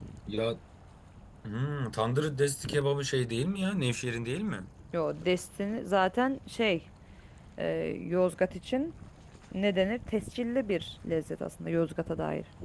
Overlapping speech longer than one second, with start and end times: none

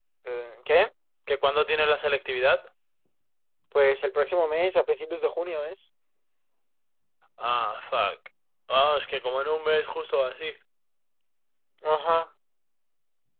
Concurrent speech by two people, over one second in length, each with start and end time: none

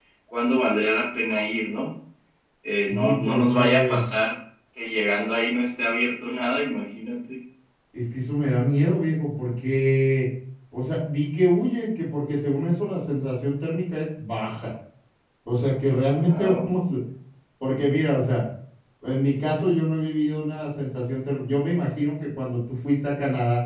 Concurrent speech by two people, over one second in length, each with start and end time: 2.8-4.0

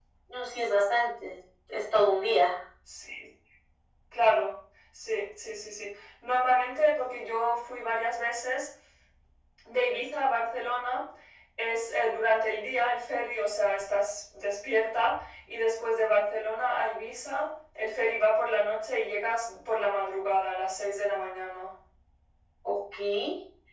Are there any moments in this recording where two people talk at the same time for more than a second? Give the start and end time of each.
none

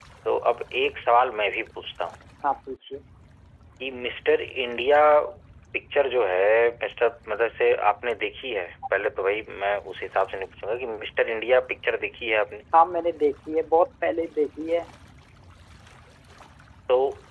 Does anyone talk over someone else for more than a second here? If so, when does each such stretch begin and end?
none

